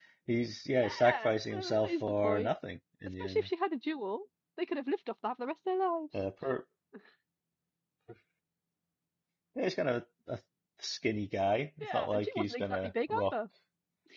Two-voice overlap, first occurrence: 0.8 s

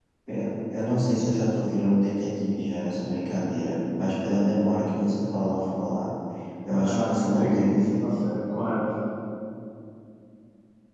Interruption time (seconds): 6.8 s

